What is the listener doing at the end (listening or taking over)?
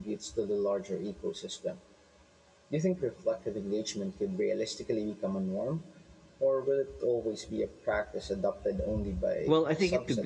taking over